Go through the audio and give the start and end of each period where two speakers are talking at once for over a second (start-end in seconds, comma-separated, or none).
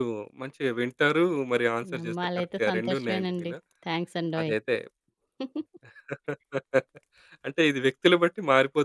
1.9-3.5